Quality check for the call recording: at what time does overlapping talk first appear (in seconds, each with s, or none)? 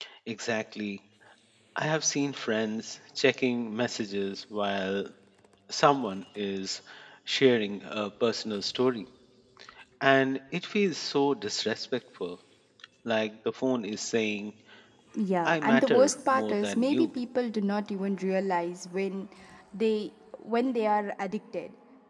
15.4 s